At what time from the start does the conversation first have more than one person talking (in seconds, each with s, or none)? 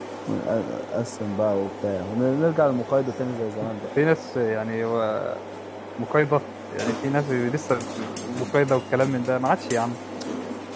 none